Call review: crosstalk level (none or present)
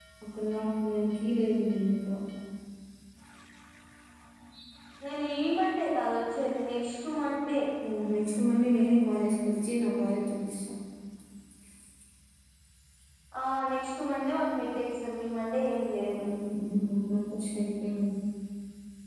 none